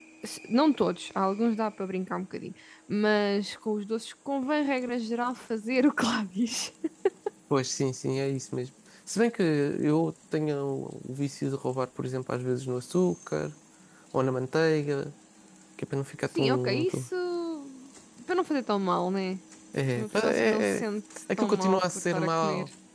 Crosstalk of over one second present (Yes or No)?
Yes